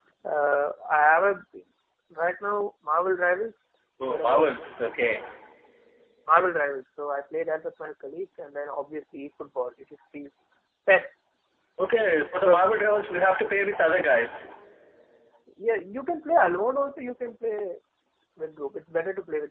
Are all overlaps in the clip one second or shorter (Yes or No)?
Yes